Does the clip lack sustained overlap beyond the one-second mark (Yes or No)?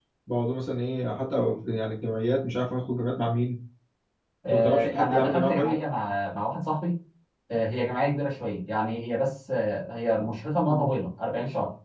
No